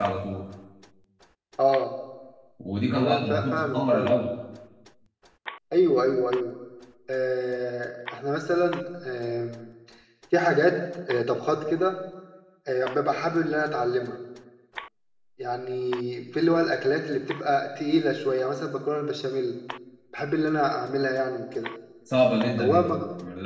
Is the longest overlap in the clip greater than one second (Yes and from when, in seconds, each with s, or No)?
Yes, from 3.0 s